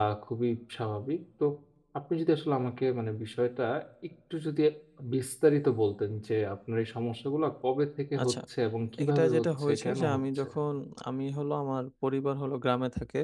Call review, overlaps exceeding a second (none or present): present